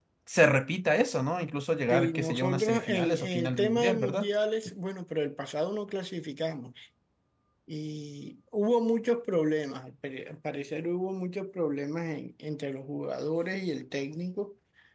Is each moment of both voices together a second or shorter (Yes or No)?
No